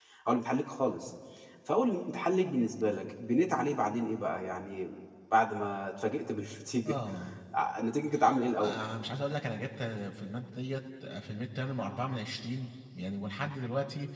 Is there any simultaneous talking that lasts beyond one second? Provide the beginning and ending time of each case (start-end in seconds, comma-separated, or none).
none